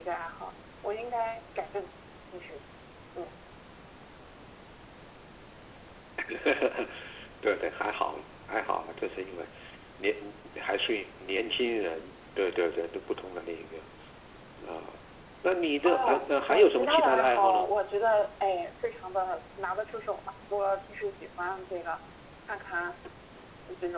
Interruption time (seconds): 15.8 s

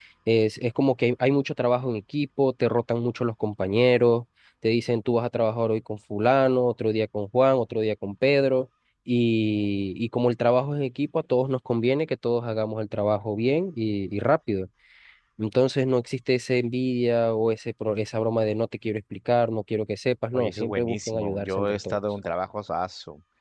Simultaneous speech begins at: 20.3 s

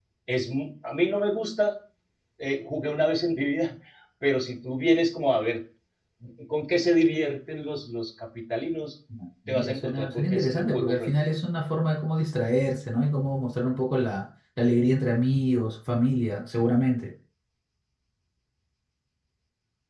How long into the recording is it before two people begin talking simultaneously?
9.5 s

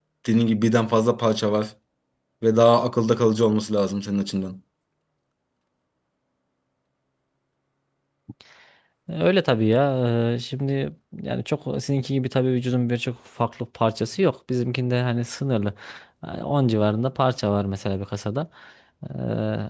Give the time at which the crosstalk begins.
none

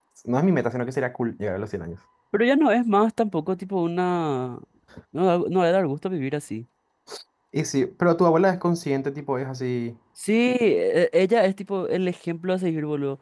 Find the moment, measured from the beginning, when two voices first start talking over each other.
none

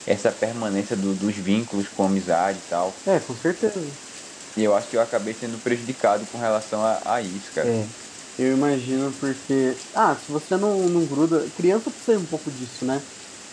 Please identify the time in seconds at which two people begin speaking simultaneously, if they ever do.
none

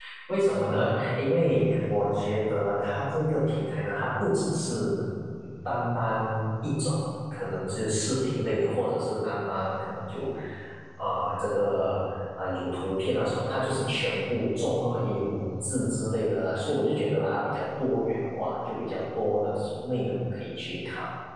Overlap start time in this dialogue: none

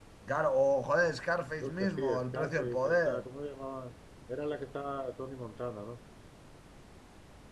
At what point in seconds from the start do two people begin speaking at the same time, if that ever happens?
1.6 s

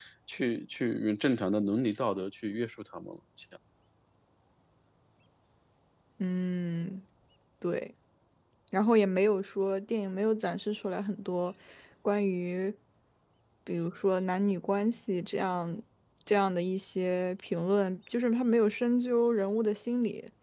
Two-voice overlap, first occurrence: none

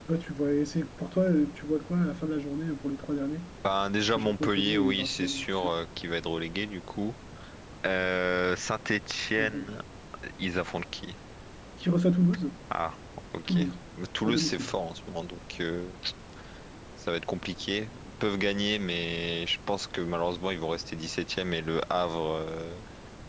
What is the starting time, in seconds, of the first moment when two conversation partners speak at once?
4.2 s

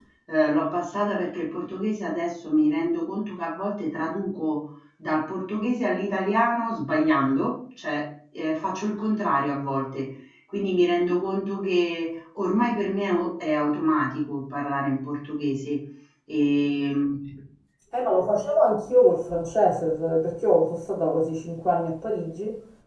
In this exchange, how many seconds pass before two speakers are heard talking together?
none

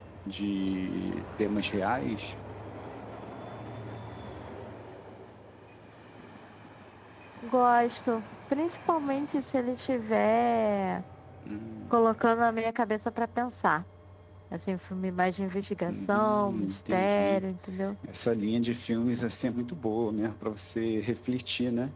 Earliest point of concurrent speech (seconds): 15.9 s

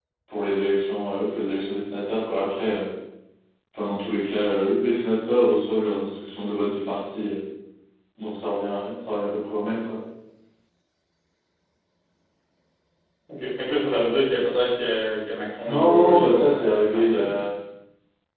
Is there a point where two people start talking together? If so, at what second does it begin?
15.6 s

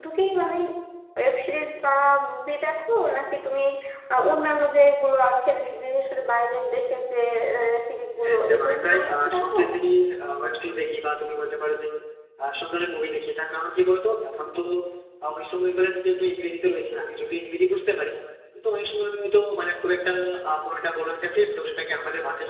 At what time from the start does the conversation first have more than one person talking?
8.2 s

